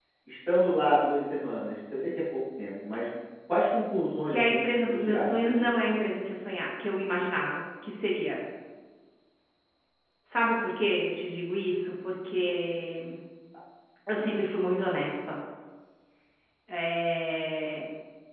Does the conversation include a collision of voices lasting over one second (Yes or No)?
Yes